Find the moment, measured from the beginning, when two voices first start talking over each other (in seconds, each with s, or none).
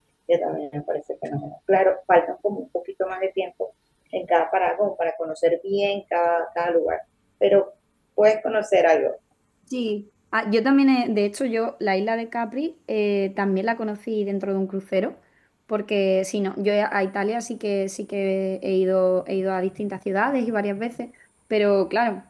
none